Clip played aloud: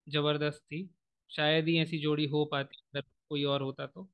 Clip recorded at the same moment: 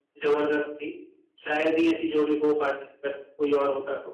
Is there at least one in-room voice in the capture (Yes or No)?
No